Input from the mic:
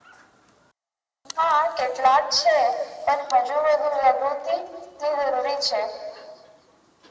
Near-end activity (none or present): none